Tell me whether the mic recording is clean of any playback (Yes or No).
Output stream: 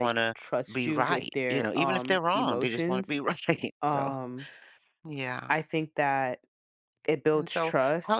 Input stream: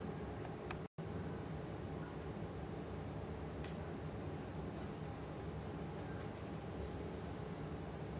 Yes